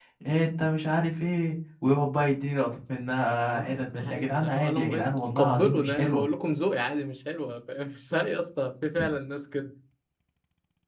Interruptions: present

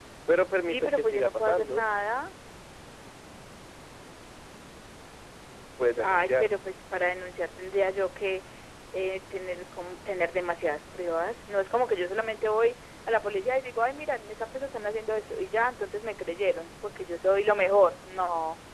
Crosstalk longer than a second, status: present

